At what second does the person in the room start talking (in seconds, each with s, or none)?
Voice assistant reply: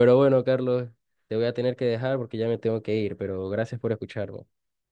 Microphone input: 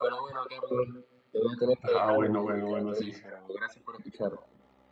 1.8 s